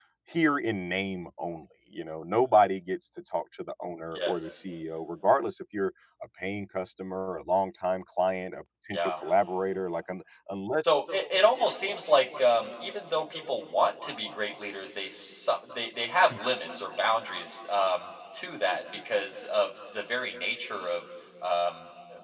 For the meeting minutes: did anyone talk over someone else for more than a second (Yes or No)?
No